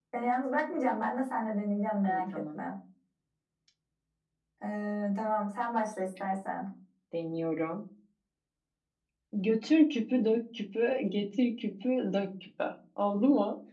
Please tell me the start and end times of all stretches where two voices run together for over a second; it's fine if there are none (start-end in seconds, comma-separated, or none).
none